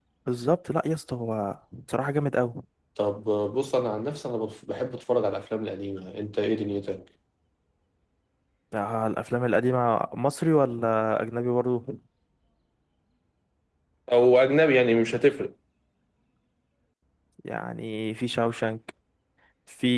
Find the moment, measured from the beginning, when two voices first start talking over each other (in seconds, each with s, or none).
none